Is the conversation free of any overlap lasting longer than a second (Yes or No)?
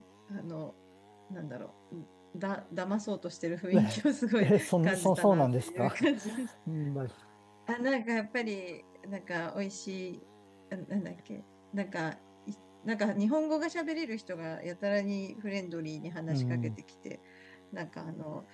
No